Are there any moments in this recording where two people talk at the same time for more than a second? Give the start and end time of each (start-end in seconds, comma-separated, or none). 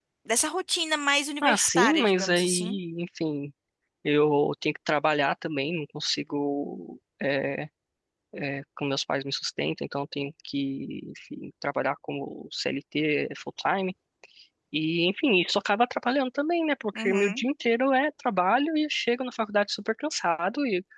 1.4-2.8